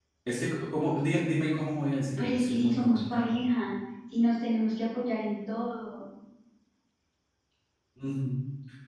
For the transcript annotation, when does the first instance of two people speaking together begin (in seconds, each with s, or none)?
2.2 s